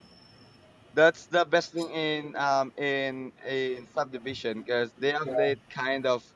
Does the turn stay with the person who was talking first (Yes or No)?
Yes